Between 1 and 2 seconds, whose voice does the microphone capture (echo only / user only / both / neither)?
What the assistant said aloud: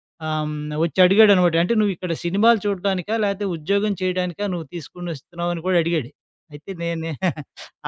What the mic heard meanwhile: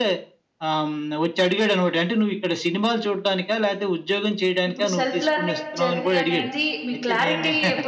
echo only